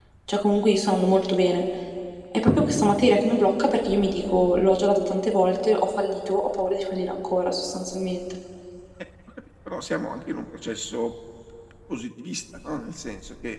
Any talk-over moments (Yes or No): No